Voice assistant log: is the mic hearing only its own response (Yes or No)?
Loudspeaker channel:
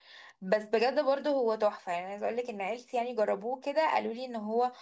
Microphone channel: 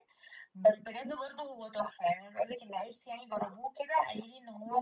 Yes